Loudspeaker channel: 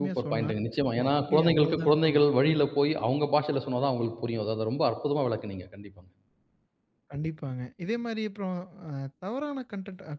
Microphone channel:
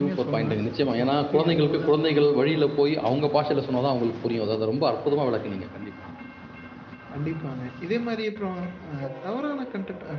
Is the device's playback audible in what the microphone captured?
Yes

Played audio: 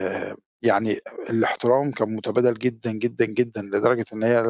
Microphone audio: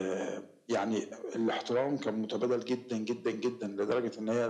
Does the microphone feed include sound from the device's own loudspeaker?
Yes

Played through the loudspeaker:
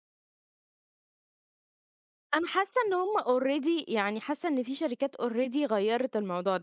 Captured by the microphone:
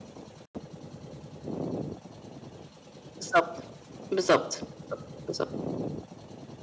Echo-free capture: Yes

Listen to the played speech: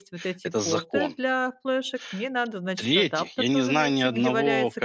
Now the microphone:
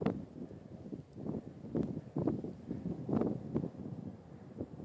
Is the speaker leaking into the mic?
No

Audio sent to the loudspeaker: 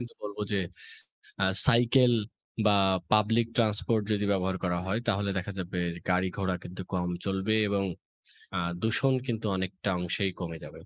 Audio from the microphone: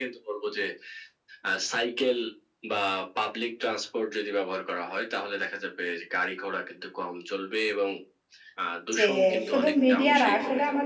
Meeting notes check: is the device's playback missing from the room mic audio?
No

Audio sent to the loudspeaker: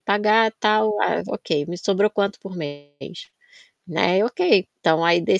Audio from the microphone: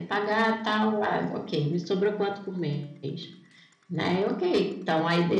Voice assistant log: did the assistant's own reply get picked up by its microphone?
Yes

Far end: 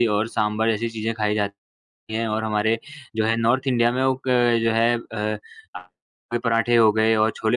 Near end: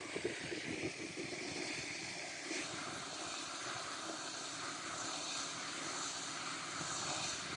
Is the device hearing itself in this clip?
No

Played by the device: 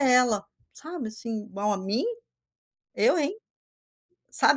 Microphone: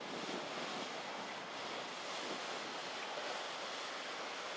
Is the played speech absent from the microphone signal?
Yes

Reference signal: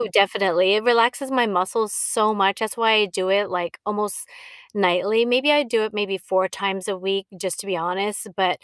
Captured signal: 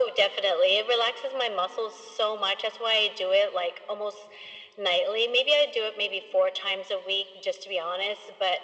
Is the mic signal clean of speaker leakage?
No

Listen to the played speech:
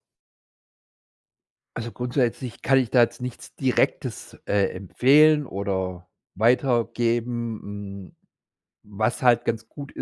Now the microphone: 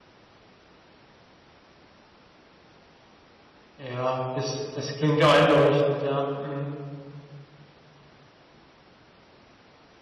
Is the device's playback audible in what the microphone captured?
No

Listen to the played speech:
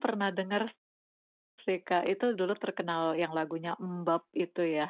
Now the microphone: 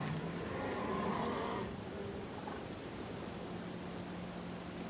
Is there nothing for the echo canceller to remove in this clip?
Yes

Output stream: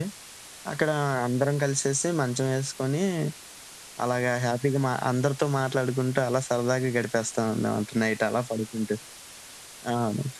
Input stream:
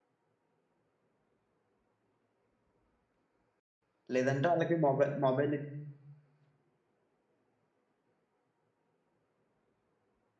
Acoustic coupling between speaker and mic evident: No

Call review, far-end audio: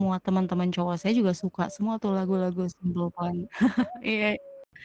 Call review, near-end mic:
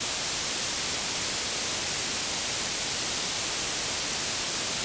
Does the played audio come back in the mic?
No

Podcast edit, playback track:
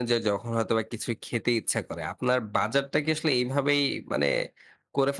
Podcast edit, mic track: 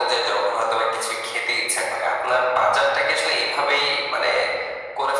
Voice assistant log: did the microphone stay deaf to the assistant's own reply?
No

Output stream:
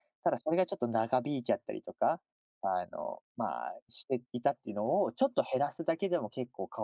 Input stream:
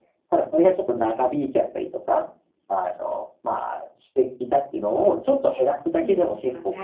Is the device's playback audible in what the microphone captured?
Yes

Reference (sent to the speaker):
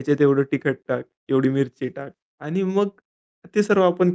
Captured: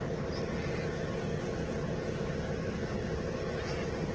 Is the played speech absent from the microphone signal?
Yes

